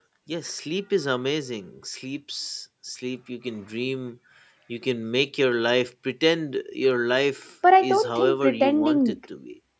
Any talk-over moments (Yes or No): Yes